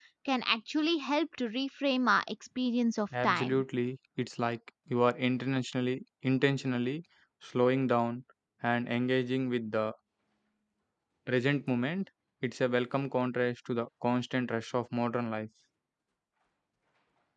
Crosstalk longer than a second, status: none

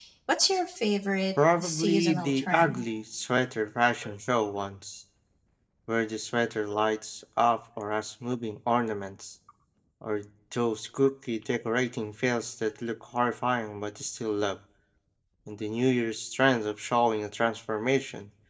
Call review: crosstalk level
present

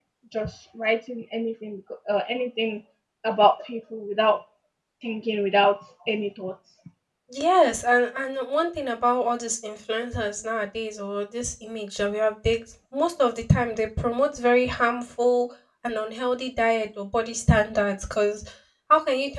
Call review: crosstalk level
none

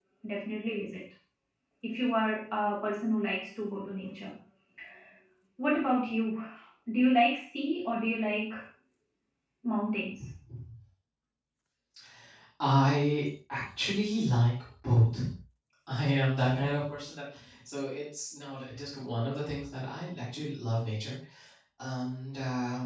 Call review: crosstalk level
none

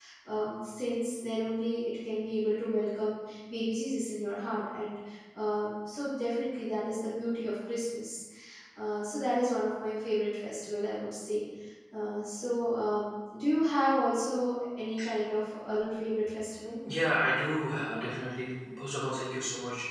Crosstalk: none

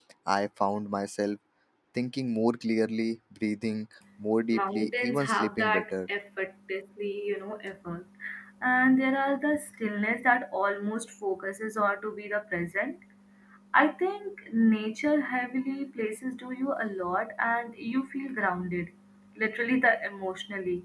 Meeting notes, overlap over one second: present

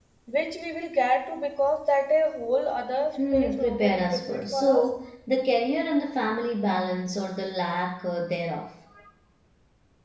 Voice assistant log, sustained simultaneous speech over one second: present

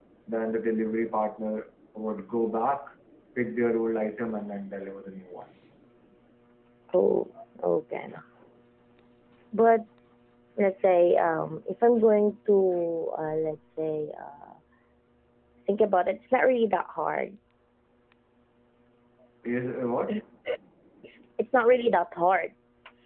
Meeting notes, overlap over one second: none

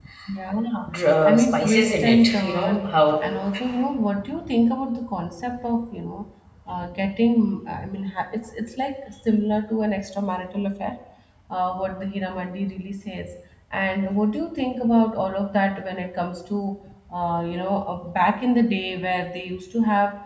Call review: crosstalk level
present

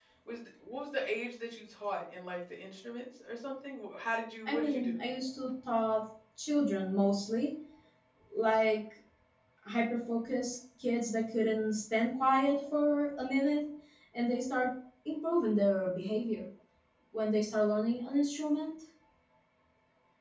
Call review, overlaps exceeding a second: none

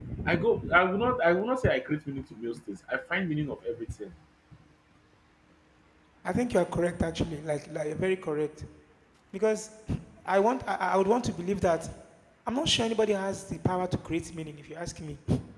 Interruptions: none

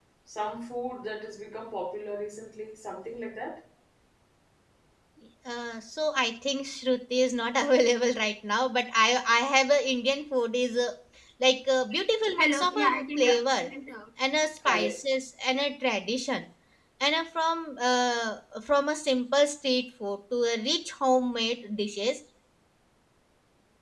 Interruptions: present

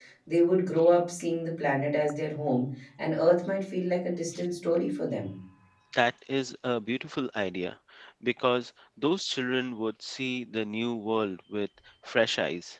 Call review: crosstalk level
none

